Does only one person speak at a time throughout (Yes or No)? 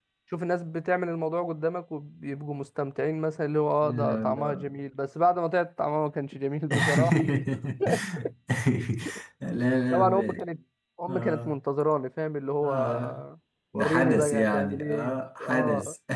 No